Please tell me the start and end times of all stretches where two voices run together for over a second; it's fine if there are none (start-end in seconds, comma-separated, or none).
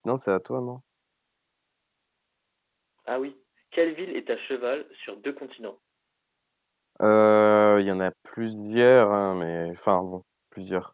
none